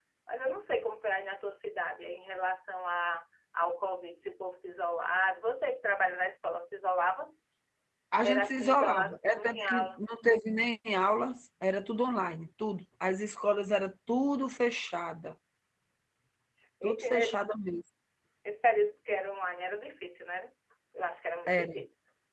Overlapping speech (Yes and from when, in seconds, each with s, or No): Yes, from 8.2 s